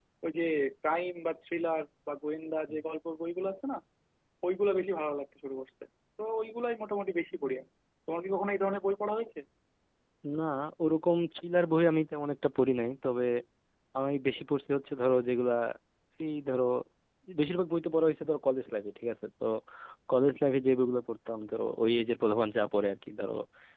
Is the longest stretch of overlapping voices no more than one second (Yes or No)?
Yes